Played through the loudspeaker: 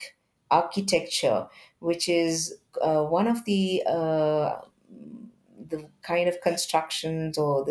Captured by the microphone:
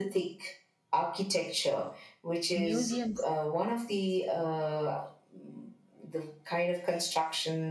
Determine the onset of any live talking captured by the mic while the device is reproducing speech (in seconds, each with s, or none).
2.5 s